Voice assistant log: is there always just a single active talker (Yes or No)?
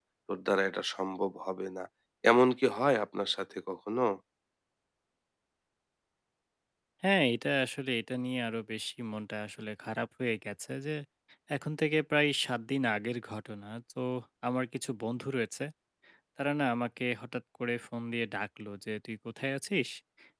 Yes